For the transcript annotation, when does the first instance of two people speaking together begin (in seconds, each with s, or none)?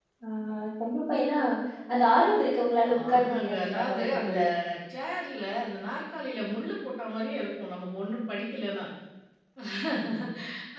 2.8 s